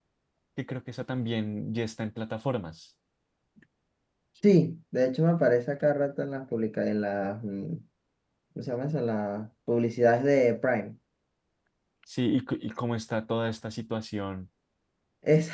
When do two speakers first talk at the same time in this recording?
none

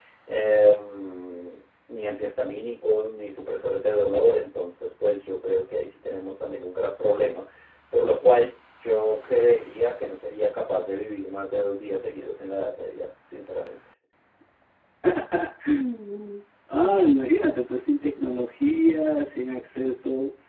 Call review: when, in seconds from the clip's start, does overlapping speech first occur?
none

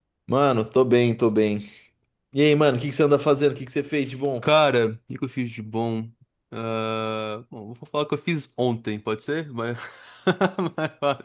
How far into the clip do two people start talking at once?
none

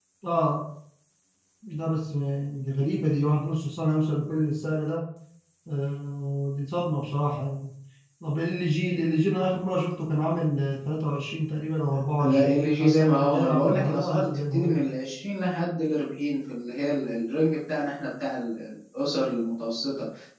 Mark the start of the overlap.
12.2 s

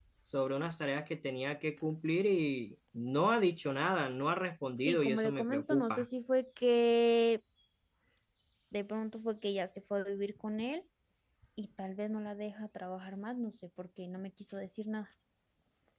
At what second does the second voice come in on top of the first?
4.8 s

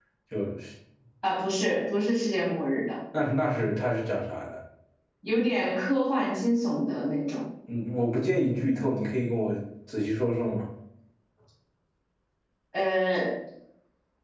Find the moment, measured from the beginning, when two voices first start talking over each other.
none

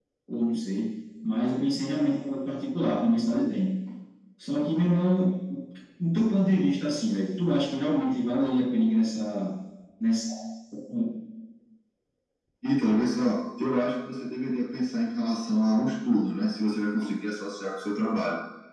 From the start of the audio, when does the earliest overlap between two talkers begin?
none

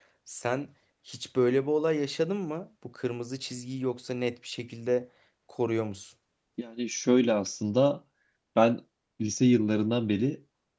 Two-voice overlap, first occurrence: none

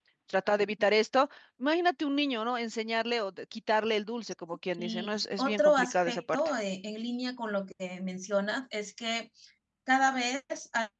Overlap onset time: 4.8 s

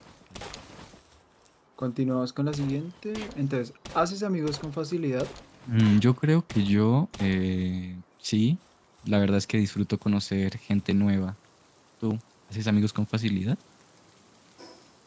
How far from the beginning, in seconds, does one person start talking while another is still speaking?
none

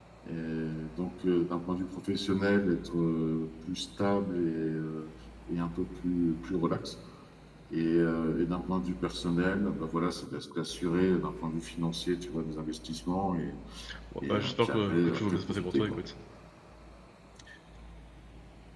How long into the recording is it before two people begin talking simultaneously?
14.3 s

